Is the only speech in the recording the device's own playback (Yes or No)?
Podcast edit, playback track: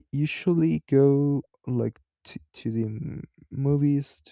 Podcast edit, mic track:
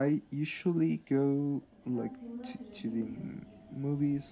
No